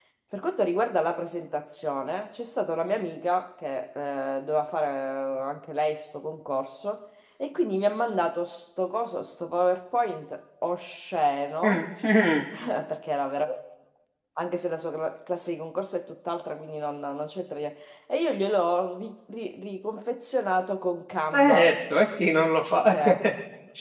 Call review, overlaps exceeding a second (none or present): none